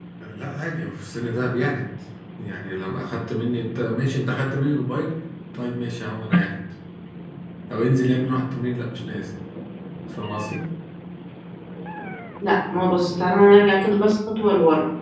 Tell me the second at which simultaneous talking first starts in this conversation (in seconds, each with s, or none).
none